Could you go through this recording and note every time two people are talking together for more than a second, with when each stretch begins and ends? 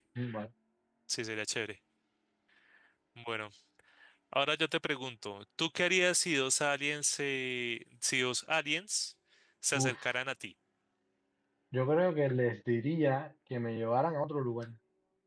none

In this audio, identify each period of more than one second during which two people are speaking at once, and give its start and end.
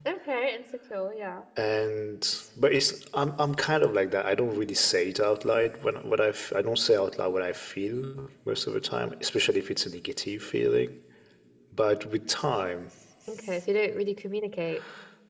none

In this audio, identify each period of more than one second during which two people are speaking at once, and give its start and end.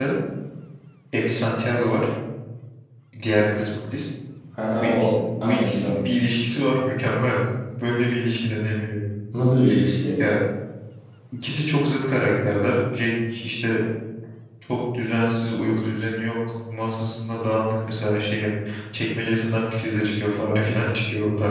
4.8-6.0

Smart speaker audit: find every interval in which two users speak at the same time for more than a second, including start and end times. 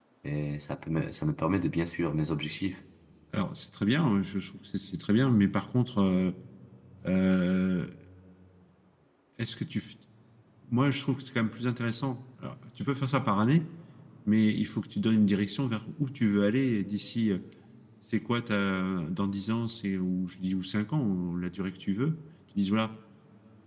none

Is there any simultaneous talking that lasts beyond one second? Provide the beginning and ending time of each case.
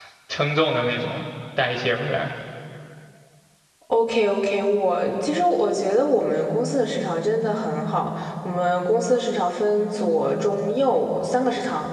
none

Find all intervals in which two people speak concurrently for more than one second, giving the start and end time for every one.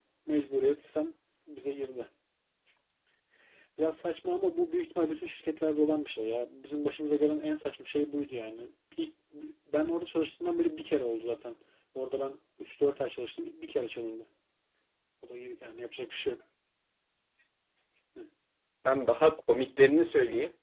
none

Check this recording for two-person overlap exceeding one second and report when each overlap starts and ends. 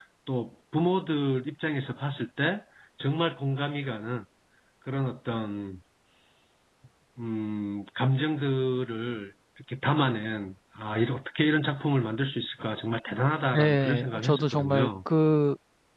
13.5-14.9

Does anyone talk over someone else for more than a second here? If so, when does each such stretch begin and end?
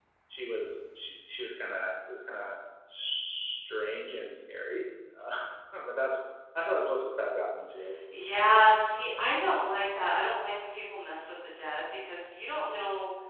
none

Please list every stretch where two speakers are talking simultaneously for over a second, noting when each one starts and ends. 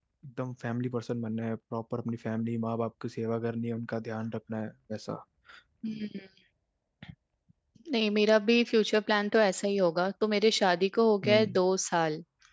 none

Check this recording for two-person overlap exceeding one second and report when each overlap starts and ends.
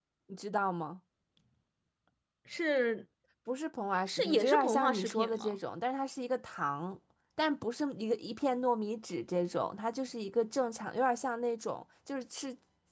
4.1-5.6

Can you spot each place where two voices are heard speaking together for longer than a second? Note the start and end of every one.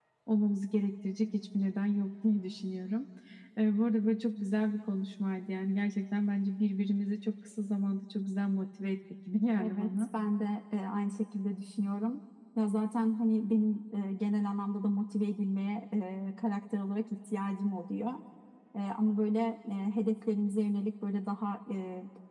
none

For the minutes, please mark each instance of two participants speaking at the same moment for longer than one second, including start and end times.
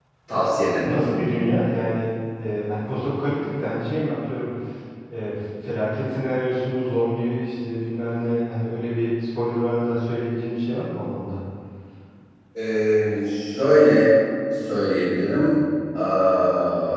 none

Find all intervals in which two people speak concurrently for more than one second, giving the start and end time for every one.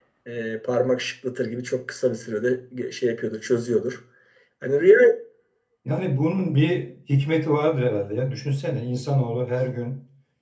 none

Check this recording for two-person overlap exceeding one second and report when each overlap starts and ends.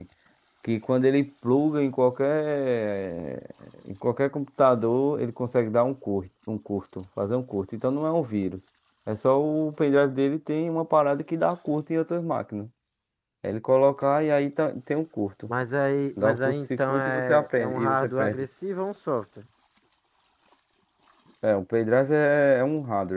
16.2-18.4

